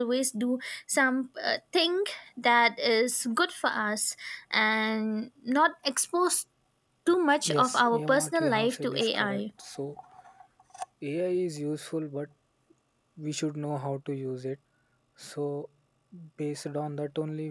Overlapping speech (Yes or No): Yes